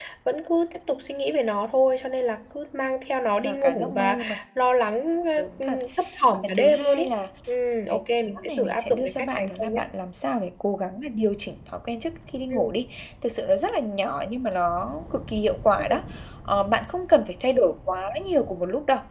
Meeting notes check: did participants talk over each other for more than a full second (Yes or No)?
Yes